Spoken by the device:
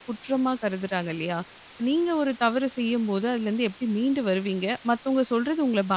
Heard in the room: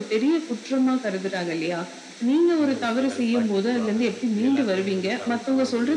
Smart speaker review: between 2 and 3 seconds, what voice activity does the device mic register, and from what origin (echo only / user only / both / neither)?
both